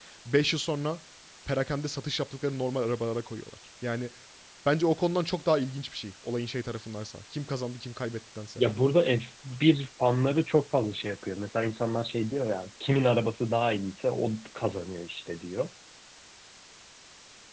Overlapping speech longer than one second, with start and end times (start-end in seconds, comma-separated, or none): none